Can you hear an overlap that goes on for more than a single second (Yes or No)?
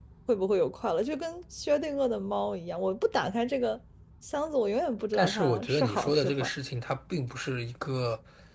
Yes